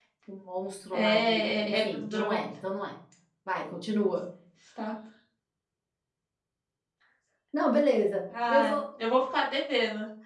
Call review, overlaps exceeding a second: present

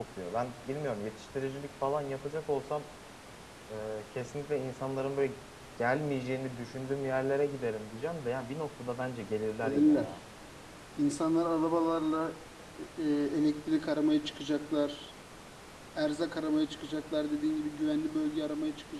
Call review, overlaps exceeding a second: none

